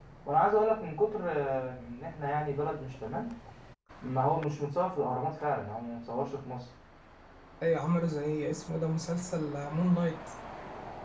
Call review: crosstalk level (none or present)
none